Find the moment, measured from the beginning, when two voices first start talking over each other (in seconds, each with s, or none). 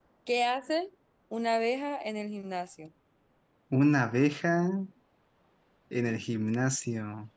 none